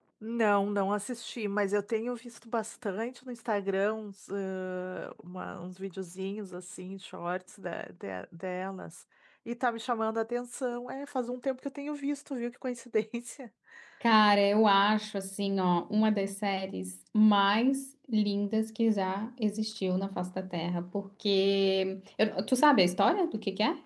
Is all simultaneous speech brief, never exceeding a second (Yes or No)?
Yes